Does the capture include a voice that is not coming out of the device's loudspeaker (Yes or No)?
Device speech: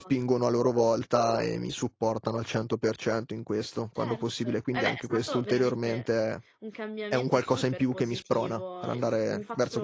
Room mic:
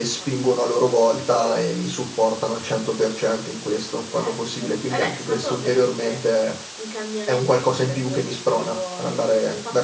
No